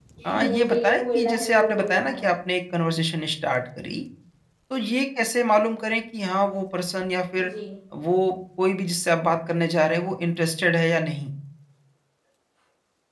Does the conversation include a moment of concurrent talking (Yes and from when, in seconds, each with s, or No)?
Yes, from 0.5 s